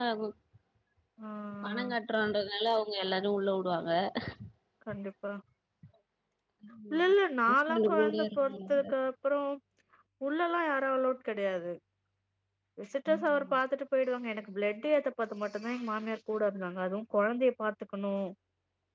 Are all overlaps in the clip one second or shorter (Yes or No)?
No